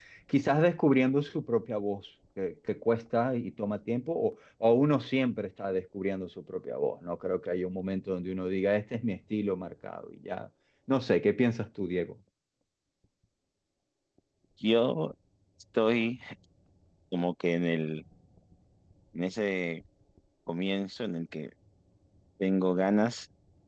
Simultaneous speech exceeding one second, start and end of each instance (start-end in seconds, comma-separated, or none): none